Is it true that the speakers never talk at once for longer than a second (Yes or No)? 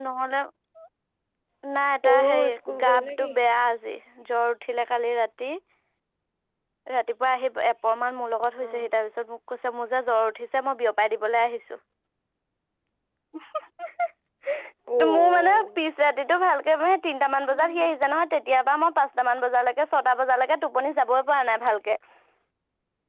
No